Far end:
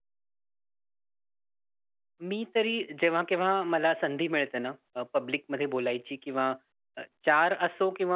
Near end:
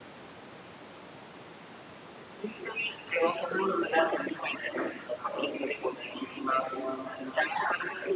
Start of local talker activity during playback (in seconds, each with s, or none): none